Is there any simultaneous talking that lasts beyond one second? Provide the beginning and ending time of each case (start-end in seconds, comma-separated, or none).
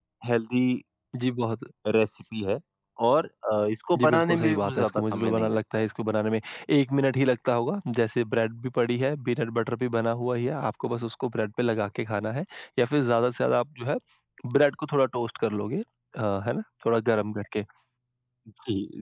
4.0-5.8